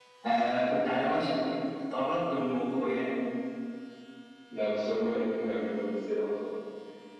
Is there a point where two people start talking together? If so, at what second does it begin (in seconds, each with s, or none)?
none